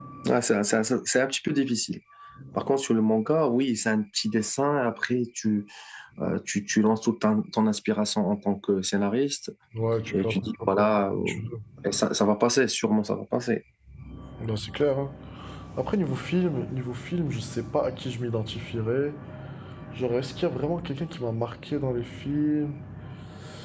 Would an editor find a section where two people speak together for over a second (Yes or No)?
Yes